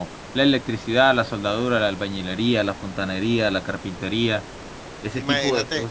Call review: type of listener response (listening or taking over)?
taking over